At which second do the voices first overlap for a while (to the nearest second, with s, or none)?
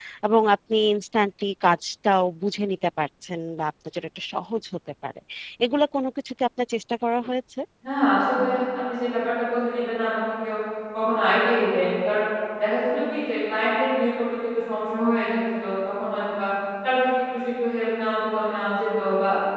none